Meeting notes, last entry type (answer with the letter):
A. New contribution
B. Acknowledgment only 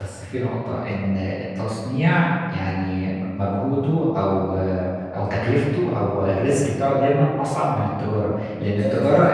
B